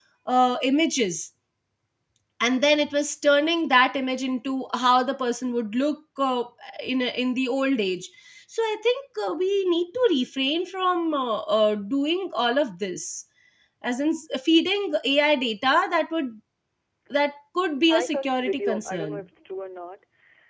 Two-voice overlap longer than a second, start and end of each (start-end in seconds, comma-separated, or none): 17.9-19.2